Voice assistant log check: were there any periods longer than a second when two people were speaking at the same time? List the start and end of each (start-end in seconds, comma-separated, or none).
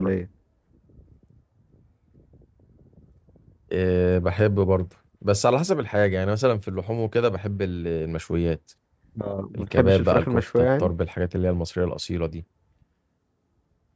9.5-10.9